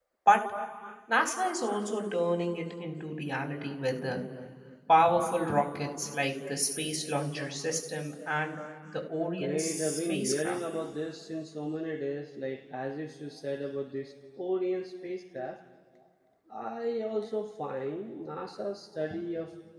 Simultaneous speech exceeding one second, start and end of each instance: 9.4-10.6

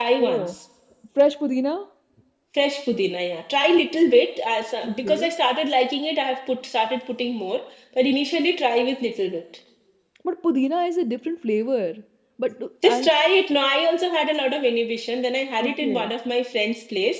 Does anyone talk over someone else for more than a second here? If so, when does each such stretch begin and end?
none

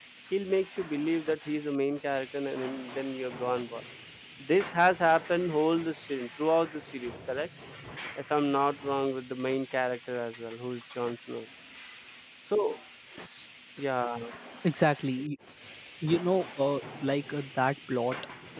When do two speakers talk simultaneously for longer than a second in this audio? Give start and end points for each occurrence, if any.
none

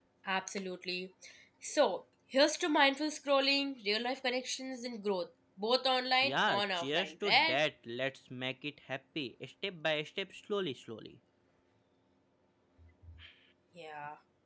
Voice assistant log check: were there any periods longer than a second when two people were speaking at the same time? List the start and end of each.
6.2-7.6

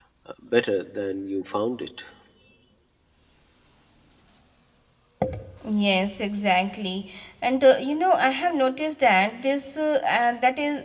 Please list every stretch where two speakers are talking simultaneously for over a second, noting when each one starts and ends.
none

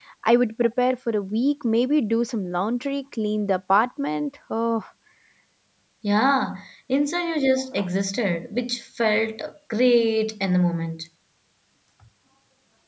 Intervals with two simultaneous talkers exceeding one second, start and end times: none

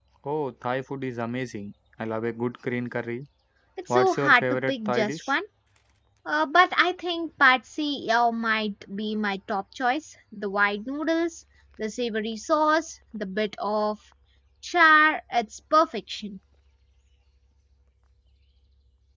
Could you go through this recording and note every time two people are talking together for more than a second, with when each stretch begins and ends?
3.9-5.3

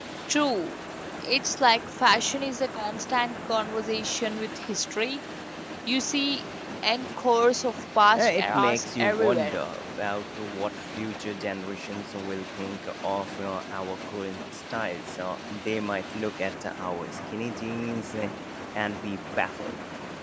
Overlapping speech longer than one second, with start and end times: 8.2-9.6

